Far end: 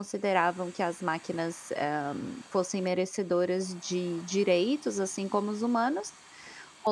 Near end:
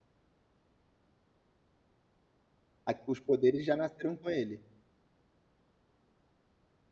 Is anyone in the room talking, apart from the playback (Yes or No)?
Yes